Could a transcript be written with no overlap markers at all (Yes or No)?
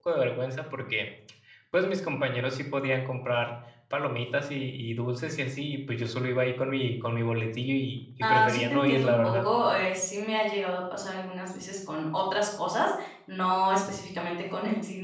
No